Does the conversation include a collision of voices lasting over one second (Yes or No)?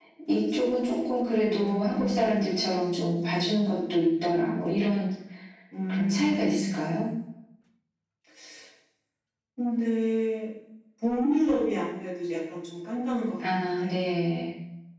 Yes